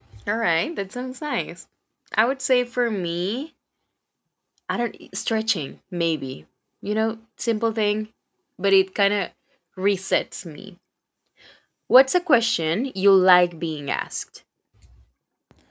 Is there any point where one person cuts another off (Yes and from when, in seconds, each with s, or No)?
No